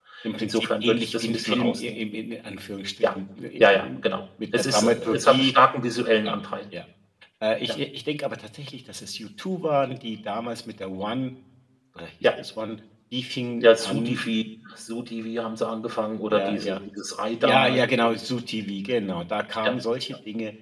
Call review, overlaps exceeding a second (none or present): present